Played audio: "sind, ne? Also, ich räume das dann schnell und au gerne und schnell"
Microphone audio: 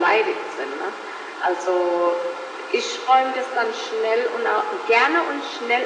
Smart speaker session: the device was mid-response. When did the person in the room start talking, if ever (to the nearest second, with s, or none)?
none